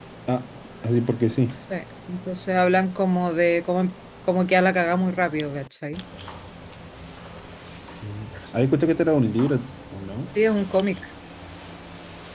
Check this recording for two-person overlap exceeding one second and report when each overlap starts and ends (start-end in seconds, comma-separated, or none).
none